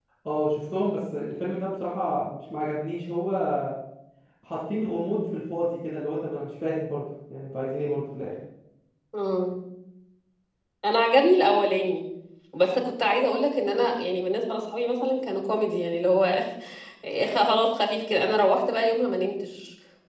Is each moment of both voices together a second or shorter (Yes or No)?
Yes